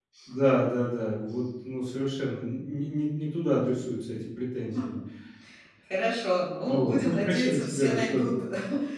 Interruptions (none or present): present